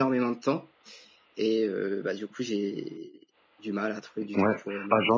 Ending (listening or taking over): taking over